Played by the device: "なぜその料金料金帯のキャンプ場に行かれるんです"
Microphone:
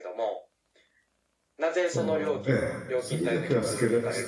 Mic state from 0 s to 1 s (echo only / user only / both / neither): echo only